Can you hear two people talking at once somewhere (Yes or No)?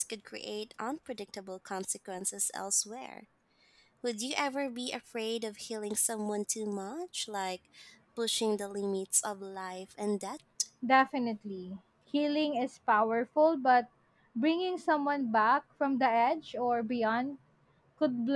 No